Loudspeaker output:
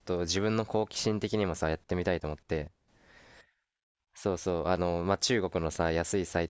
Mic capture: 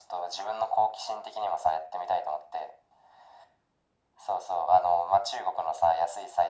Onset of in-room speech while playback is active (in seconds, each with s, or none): none